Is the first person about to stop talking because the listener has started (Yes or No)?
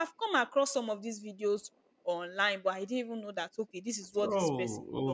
Yes